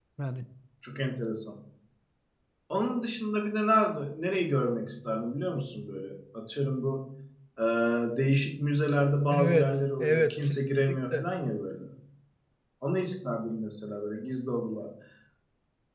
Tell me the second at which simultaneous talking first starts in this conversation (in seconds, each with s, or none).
9.3 s